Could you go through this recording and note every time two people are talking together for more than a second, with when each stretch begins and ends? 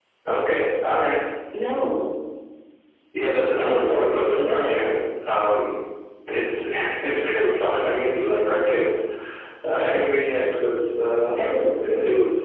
3.5-4.8

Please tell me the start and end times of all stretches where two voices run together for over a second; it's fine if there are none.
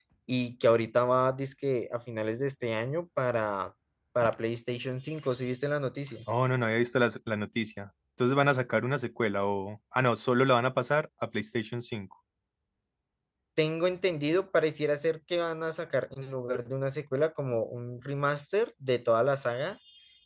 none

